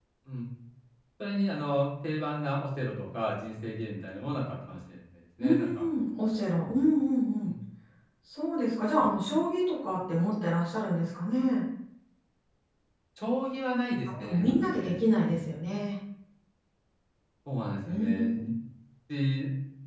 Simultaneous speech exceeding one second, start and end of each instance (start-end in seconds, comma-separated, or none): 14.1-15.5